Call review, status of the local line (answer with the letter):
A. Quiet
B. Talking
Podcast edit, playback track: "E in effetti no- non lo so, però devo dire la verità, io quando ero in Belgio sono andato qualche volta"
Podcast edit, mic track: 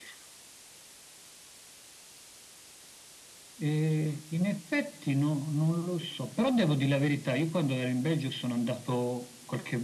A